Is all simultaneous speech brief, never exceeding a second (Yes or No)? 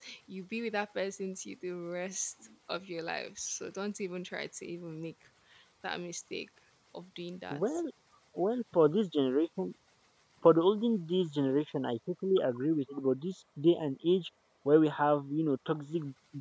Yes